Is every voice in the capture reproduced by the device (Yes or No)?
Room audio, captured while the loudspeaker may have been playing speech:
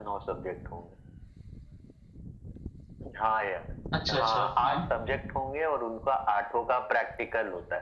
No